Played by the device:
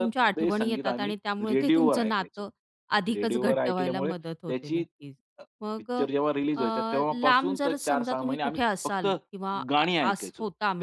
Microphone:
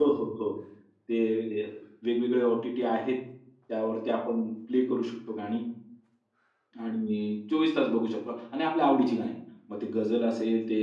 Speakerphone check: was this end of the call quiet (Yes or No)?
No